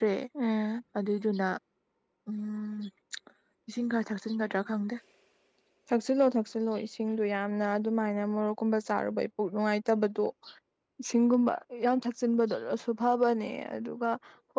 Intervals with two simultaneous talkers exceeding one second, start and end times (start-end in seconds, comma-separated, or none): none